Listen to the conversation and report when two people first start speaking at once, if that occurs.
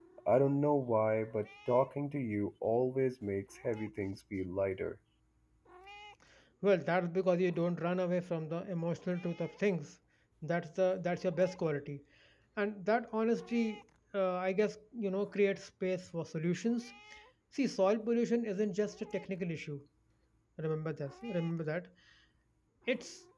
none

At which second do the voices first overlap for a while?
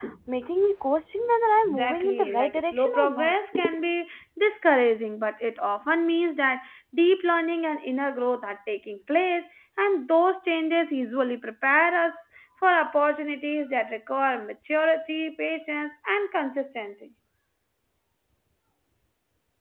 2 s

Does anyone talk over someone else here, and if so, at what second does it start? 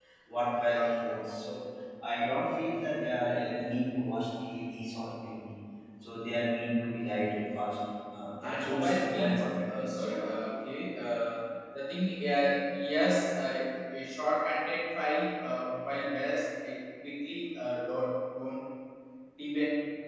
8 s

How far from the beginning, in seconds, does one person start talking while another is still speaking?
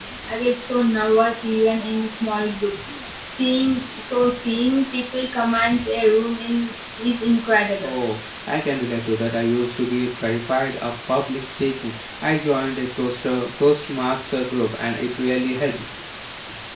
none

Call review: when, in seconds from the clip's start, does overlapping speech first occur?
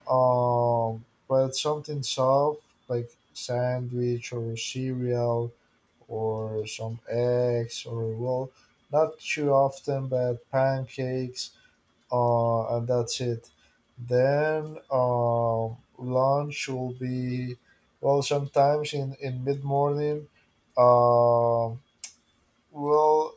none

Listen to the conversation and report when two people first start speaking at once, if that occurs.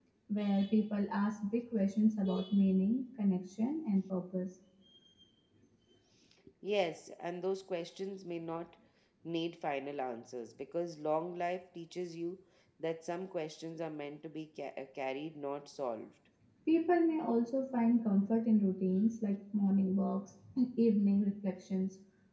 none

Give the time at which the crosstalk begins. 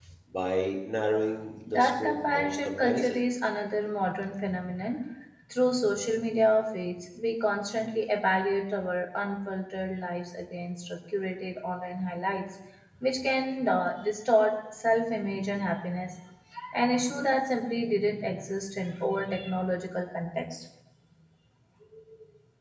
1 s

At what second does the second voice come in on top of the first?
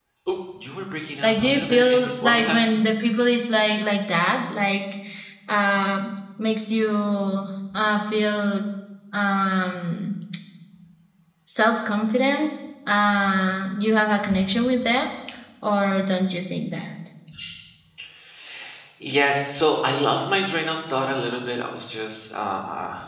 1 s

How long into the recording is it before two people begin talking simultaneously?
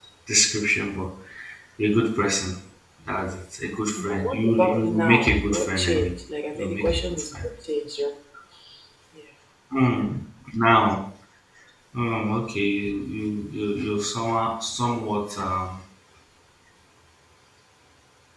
4 s

